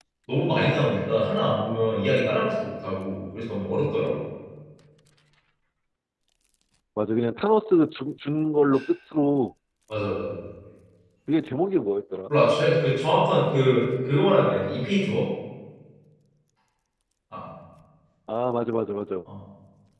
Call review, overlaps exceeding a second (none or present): none